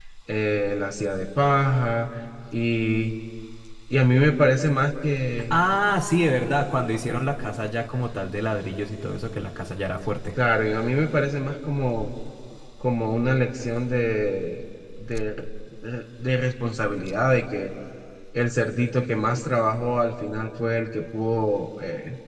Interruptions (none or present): none